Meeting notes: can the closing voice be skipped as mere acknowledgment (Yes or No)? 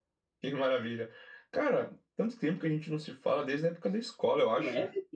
No